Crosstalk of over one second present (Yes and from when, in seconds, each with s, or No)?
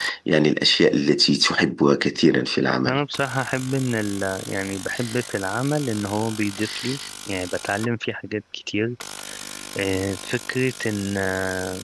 No